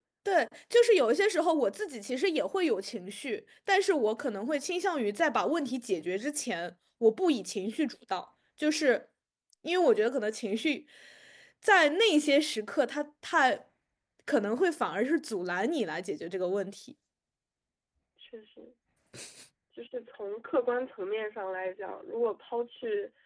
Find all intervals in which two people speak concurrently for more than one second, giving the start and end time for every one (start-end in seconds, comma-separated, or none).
none